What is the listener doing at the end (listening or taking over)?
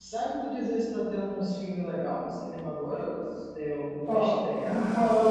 taking over